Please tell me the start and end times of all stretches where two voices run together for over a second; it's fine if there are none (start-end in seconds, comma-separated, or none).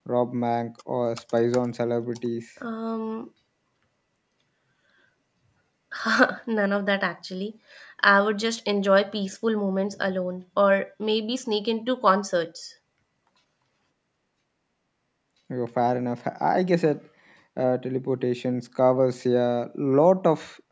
none